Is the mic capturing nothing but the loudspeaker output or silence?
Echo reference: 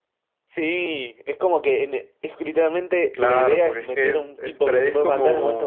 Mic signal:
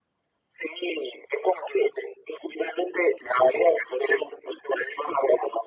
Yes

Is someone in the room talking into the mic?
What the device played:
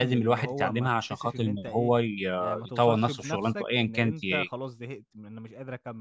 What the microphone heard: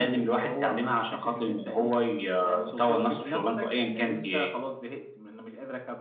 No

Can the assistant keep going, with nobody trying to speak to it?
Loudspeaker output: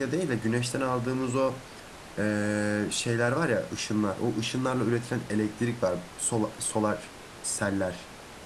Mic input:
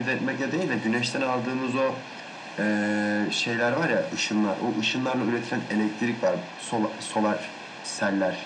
Yes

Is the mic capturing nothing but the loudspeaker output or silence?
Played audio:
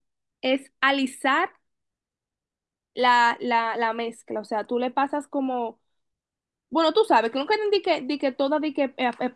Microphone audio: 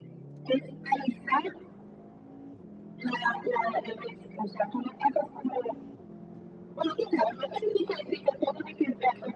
Yes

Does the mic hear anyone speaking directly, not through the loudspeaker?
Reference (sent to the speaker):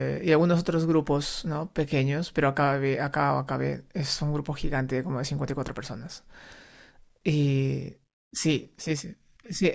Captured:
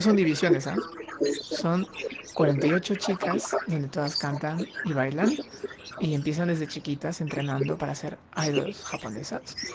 Yes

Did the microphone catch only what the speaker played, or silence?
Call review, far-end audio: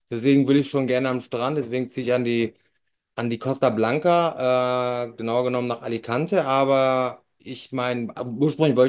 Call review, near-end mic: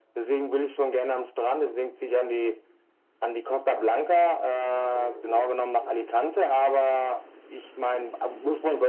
Yes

